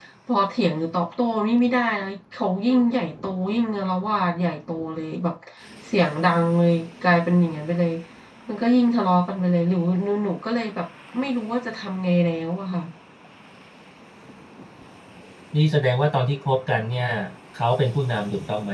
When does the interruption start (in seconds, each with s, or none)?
none